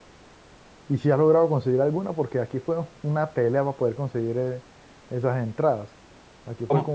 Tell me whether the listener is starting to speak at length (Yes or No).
No